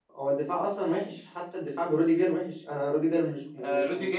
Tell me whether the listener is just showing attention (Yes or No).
No